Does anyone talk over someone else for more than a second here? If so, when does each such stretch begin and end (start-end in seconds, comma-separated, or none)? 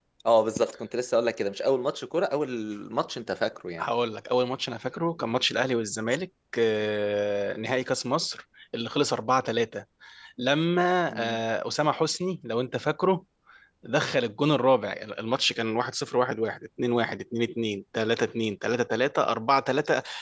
none